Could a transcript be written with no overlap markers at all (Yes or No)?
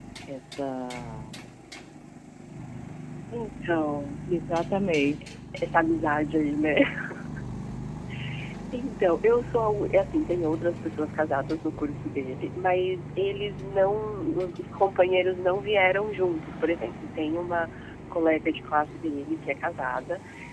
Yes